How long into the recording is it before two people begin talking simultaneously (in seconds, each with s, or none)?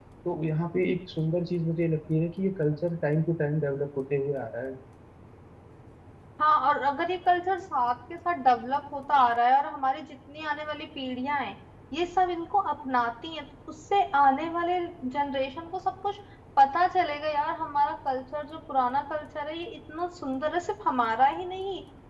none